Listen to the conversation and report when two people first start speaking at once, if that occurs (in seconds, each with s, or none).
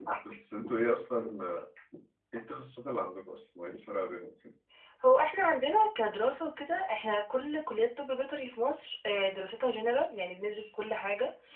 none